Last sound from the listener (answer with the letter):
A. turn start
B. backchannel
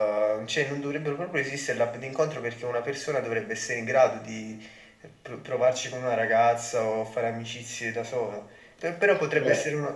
B